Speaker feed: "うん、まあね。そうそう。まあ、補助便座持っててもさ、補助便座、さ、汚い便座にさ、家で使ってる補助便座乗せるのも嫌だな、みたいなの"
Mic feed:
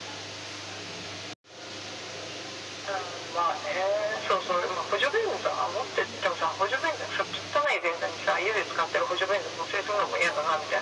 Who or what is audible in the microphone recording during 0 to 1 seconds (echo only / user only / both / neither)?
neither